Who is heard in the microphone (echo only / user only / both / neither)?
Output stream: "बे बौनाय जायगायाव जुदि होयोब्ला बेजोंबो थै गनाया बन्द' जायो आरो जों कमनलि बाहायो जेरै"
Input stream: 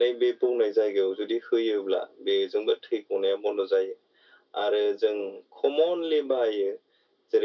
echo only